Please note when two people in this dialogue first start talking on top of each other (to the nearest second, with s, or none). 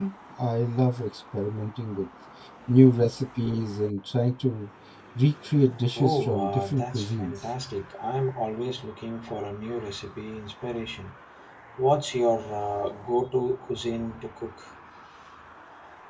6 s